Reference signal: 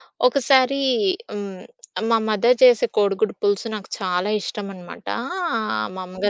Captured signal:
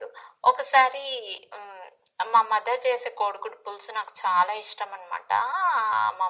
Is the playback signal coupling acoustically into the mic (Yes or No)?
Yes